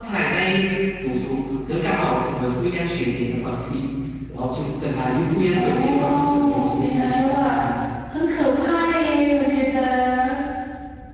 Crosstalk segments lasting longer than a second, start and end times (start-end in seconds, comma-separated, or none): 5.5-7.6